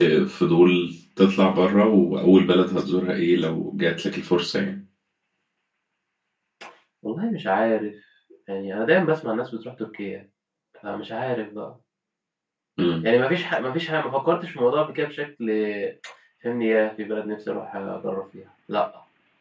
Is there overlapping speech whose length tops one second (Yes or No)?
No